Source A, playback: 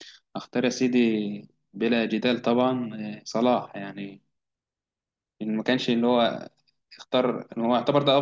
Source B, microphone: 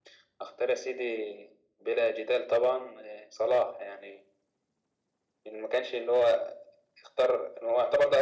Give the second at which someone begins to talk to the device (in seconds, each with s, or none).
none